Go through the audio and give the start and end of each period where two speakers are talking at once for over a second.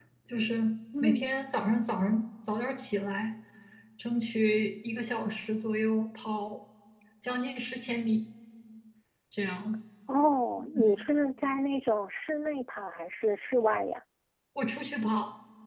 none

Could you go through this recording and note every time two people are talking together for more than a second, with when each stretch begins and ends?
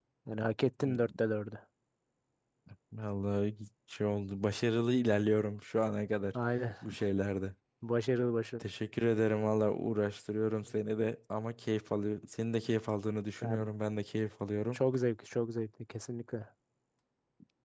none

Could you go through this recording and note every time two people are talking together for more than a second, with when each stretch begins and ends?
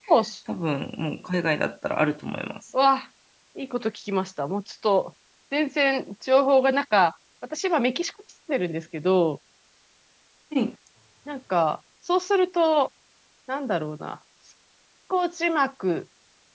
none

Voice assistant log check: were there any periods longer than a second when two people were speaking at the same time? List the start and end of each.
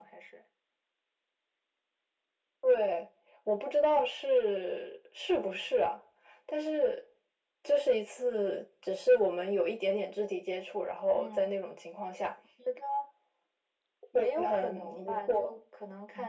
14.2-15.6

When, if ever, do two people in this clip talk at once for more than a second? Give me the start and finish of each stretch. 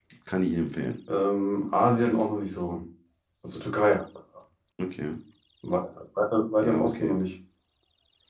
none

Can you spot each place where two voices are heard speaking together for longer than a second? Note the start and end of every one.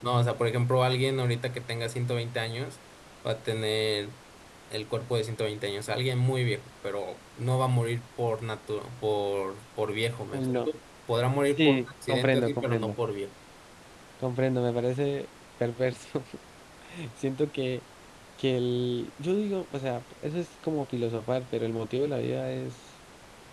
11.5-13.0

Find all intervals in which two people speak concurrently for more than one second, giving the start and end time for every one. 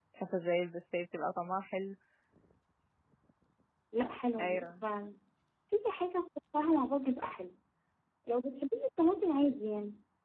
none

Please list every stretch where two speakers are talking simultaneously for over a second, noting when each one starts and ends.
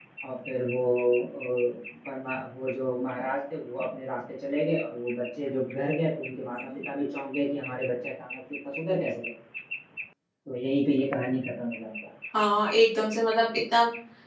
none

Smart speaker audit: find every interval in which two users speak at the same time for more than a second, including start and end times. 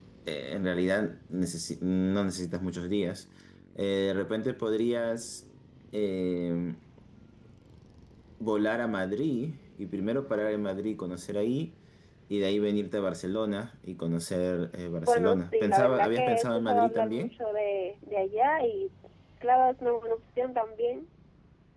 15.0-17.3

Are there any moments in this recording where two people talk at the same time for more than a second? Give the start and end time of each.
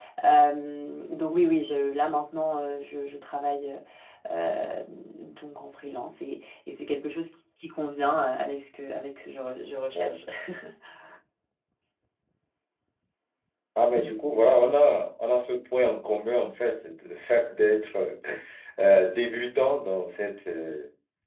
none

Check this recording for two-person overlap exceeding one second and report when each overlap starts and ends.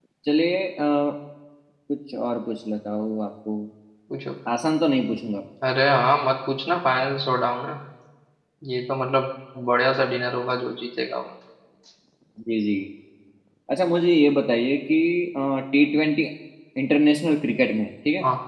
none

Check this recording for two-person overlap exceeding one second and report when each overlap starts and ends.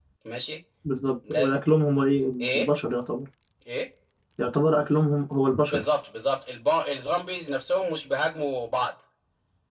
none

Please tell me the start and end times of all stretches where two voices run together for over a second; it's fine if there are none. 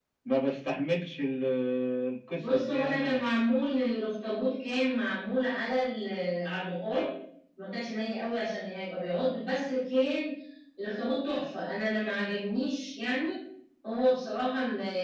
2.4-3.6

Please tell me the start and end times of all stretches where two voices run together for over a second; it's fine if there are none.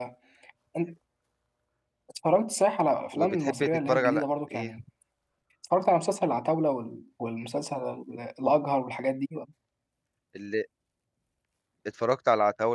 3.1-4.7

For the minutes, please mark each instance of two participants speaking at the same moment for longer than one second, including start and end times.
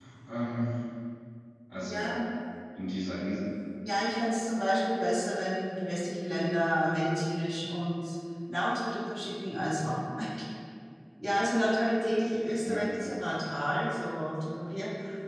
none

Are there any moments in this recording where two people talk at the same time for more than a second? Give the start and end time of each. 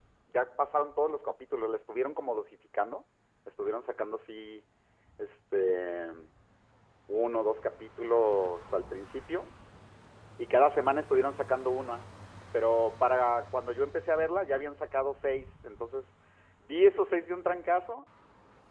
none

